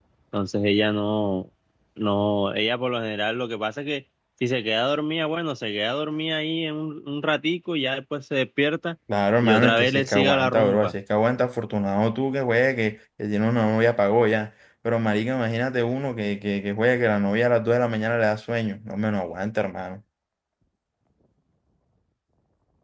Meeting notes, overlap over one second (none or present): present